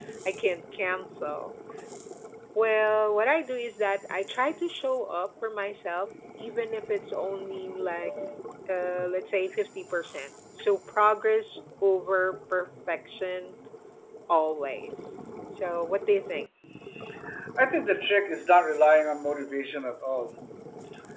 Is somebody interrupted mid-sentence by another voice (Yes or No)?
No